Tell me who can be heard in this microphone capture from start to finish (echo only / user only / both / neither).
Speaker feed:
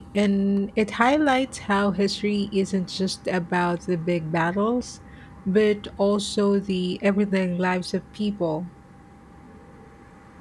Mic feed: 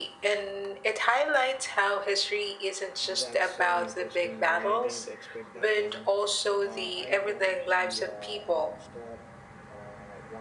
both